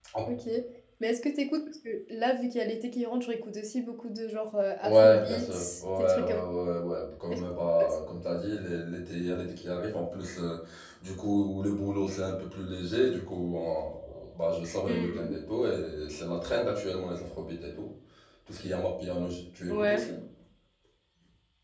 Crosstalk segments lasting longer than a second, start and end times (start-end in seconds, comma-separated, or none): 4.8-6.4